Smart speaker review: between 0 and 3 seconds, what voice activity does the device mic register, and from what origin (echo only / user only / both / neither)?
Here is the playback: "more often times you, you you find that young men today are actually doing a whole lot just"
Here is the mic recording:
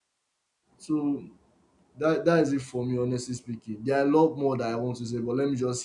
user only